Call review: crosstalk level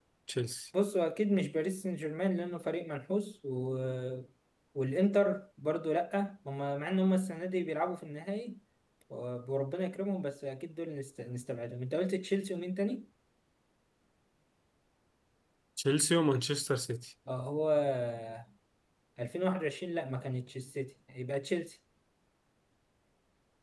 none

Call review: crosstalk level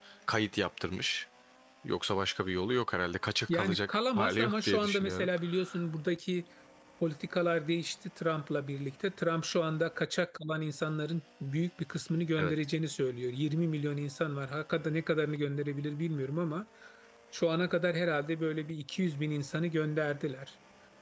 present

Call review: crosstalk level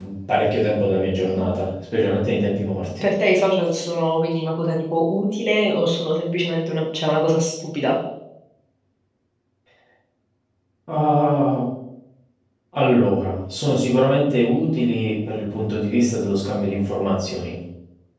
none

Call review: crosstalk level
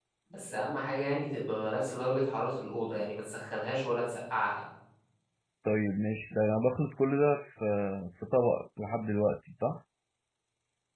none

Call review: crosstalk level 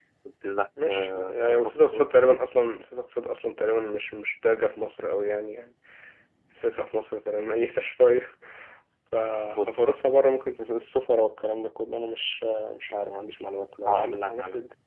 present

